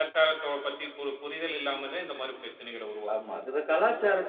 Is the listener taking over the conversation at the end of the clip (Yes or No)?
Yes